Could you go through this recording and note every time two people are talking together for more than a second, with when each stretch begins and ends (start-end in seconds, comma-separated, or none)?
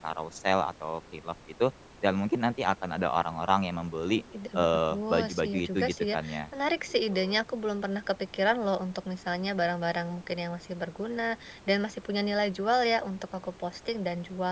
4.6-6.2